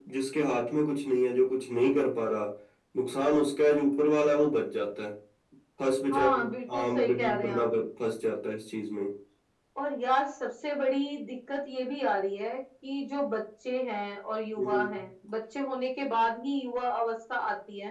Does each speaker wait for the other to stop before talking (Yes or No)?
No